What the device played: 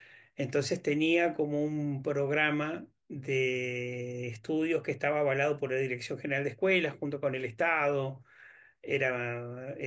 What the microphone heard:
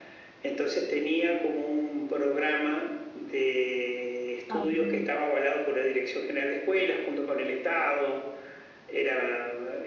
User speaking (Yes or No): Yes